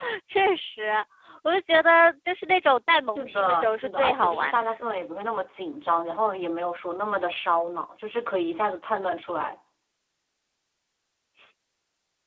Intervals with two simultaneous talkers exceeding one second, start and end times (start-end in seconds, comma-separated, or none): 3.1-5.0